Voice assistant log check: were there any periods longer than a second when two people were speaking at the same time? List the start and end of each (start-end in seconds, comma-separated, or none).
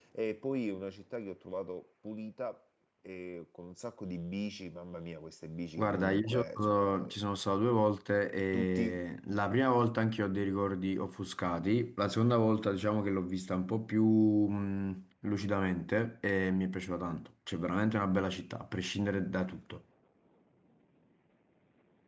5.8-7.2